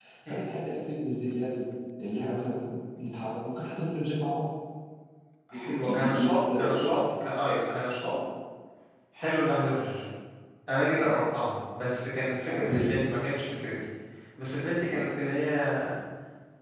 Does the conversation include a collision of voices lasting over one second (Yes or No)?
Yes